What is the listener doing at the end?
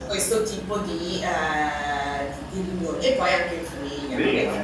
taking over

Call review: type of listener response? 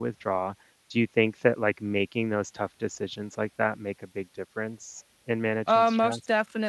taking over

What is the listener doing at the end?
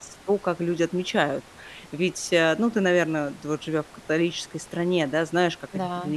listening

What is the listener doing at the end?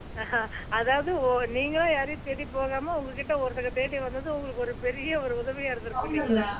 taking over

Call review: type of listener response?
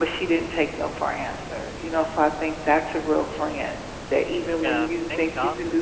taking over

